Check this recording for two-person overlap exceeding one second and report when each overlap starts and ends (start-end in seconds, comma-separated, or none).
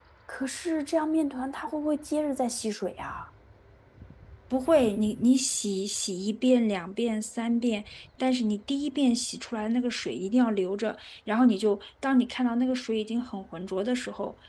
none